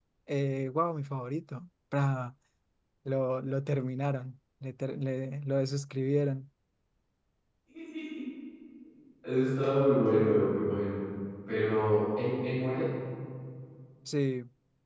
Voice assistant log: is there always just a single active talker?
Yes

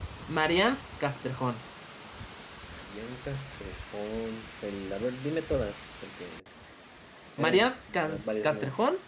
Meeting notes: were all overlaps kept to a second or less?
No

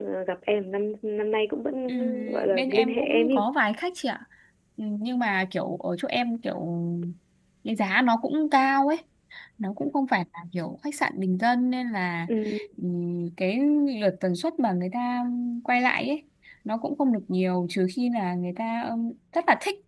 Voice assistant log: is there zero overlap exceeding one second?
No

